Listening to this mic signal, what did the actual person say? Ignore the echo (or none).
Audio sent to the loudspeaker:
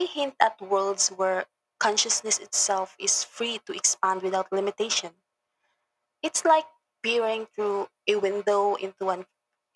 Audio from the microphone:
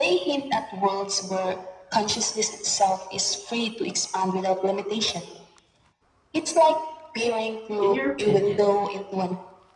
In your opinion,